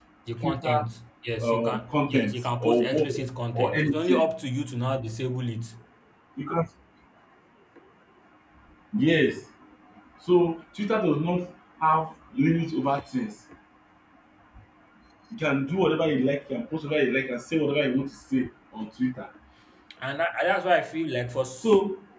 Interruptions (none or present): present